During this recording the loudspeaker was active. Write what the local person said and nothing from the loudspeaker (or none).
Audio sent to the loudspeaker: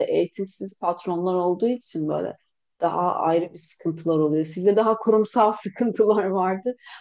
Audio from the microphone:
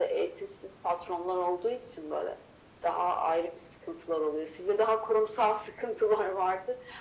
none